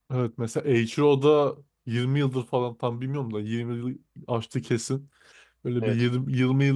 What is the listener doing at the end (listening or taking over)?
listening